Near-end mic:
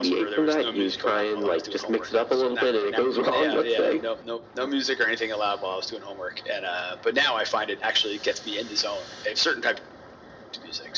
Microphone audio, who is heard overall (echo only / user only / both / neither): echo only